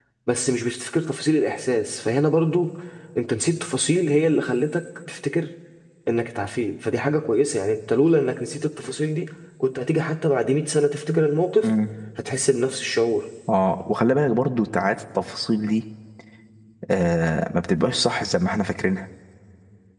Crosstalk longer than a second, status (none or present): none